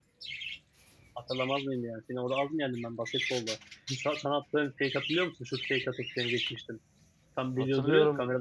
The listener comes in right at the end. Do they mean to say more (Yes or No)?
Yes